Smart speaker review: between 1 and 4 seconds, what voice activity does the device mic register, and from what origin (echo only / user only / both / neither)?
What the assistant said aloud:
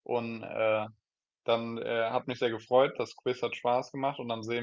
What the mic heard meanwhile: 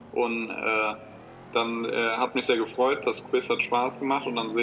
echo only